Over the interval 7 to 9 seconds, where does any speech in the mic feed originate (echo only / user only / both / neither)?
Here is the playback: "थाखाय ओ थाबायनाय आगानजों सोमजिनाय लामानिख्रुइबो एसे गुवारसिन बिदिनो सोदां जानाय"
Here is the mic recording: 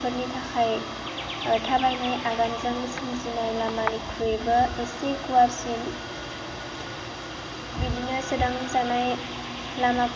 echo only